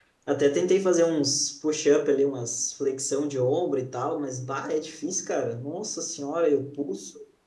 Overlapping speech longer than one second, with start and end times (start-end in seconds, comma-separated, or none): none